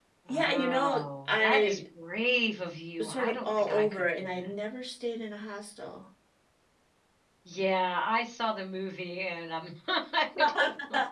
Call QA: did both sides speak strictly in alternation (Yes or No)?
No